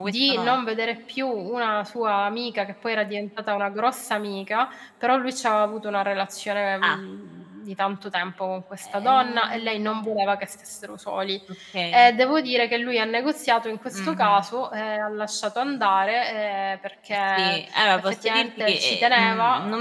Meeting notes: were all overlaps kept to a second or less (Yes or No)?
No